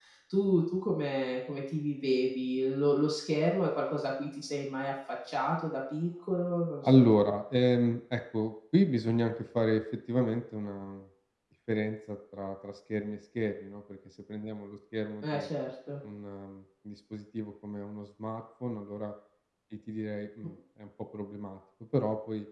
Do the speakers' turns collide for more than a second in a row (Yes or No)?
No